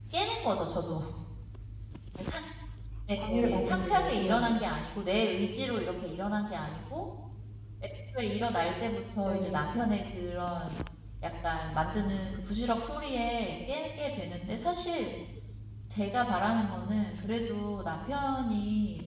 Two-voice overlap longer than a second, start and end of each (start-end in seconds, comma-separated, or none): 3.3-4.6